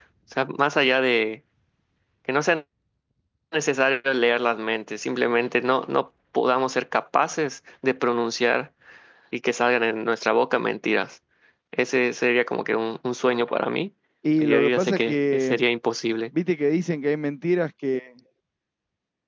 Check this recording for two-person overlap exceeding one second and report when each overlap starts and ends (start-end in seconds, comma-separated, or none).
14.4-15.6